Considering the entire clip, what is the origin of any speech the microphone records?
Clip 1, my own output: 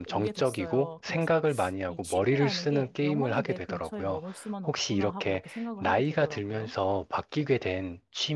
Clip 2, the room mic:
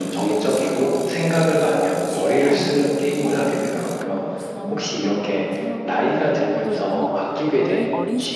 both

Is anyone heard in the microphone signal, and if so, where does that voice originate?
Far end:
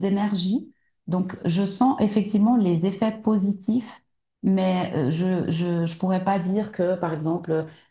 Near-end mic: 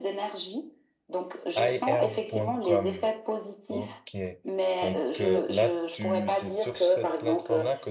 both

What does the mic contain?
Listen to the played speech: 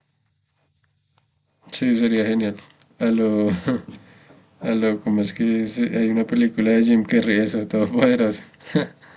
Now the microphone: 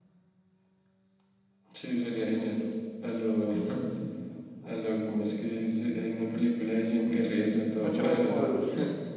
both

